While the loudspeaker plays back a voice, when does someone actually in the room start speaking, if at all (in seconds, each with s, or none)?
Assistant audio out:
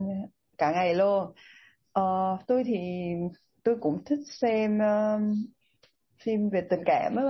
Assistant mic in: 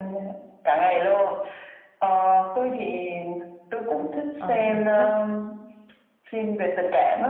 4.4 s